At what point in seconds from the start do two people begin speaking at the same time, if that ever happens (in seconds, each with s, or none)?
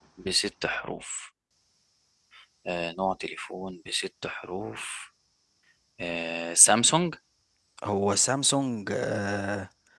none